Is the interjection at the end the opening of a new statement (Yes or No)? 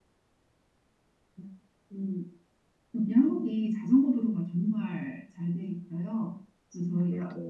No